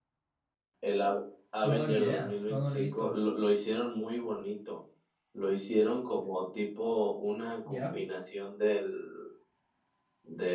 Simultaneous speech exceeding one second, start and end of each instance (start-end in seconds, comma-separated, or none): 1.6-3.1